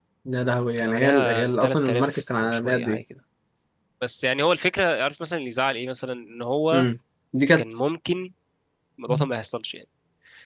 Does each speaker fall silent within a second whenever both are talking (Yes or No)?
No